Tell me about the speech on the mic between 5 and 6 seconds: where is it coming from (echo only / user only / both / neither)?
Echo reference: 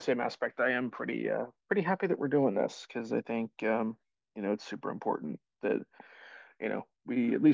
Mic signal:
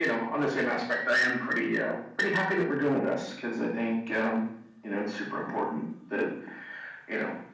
echo only